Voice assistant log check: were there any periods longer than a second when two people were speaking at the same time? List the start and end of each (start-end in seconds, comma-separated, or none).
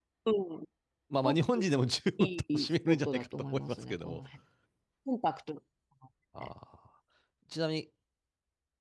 2.2-4.2